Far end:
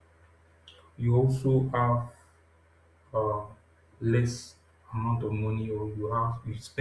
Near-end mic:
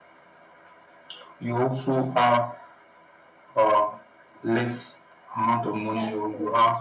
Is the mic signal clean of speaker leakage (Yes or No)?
No